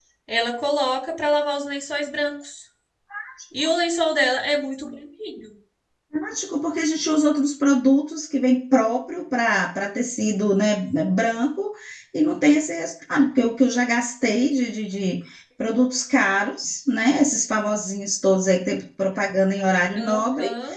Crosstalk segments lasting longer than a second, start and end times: none

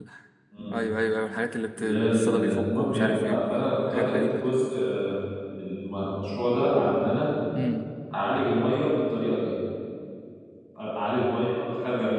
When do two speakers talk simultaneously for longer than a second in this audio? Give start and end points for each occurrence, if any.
1.8-4.6

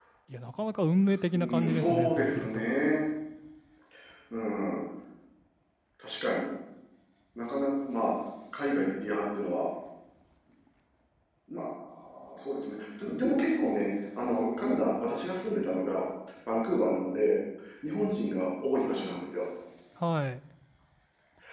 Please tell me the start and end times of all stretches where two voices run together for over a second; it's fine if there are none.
1.3-2.7

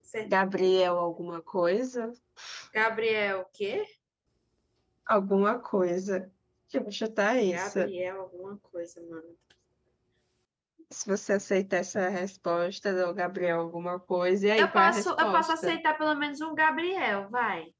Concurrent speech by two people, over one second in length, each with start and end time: 14.6-15.8

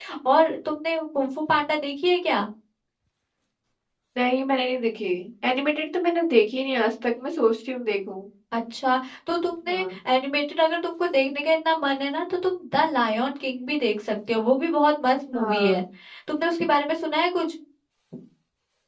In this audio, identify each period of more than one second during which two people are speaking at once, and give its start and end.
none

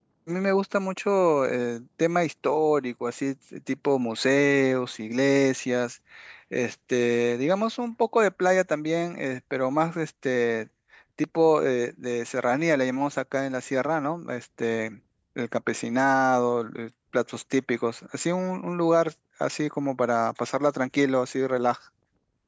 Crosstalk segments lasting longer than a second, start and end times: none

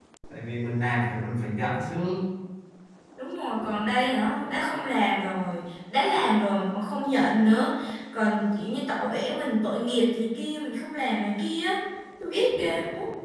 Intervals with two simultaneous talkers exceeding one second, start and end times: none

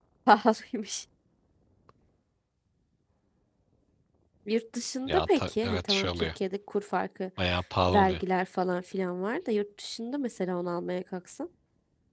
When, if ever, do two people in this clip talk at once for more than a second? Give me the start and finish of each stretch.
5.1-6.3

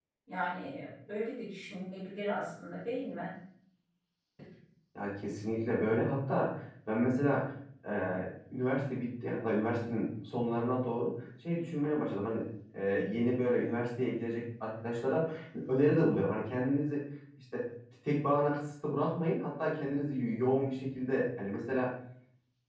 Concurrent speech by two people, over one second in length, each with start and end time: none

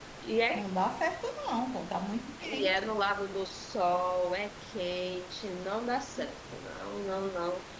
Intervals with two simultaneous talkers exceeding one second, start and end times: none

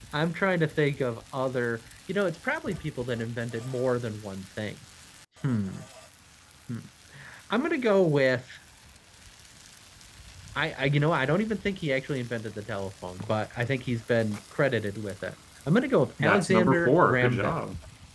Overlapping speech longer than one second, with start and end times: 16.2-17.6

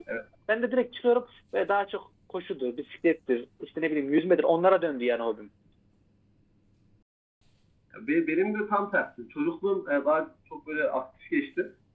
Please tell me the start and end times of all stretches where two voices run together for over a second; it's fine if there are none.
none

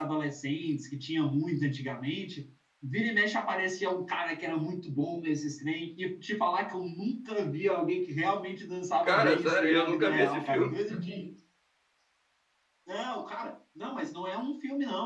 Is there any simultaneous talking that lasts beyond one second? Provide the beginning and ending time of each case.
9.0-10.7

